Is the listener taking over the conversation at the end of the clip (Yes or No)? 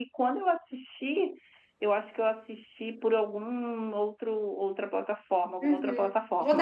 Yes